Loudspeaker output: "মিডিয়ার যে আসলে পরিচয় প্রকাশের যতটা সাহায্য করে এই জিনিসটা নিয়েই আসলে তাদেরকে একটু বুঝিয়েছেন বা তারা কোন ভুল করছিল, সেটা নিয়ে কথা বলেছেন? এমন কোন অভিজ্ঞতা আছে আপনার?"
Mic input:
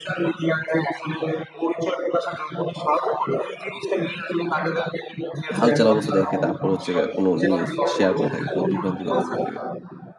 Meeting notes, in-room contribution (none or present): present